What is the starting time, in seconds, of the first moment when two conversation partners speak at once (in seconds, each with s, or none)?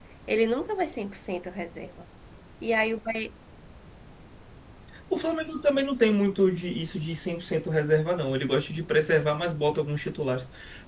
none